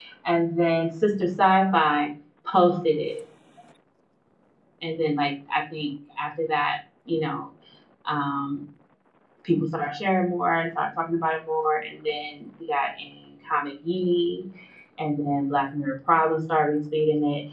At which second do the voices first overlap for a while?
none

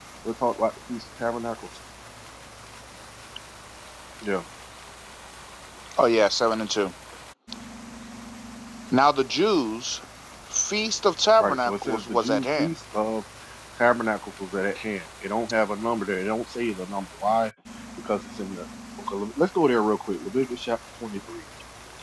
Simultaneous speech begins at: 11.4 s

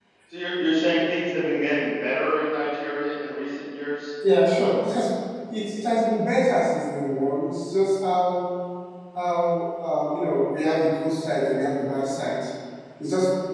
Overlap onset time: none

